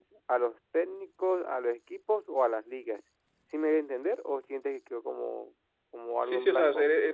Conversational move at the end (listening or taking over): taking over